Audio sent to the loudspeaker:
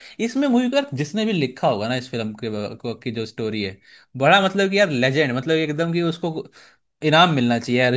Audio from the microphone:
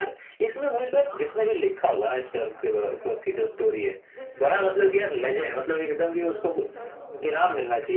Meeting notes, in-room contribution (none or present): present